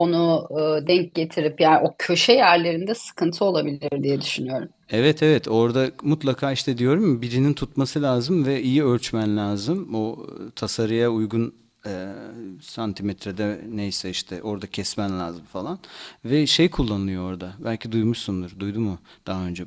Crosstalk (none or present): none